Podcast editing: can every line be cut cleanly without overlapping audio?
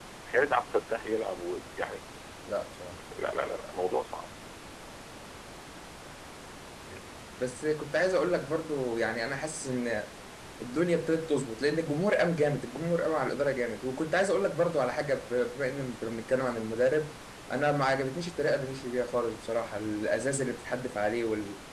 Yes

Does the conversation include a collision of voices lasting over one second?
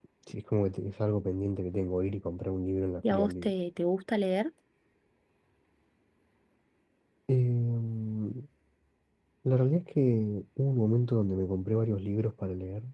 No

